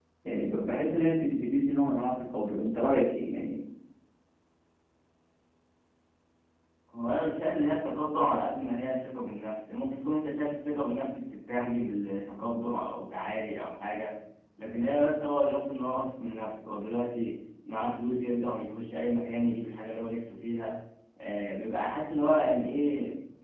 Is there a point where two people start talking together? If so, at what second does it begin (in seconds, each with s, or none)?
none